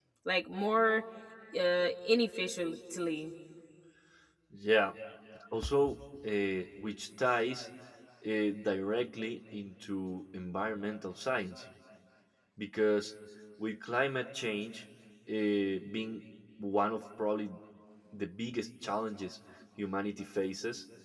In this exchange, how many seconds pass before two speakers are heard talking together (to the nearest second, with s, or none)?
none